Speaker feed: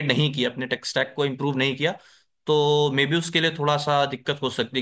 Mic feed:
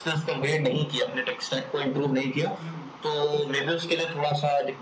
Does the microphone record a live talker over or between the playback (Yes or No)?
Yes